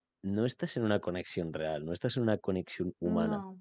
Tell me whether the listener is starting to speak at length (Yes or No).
No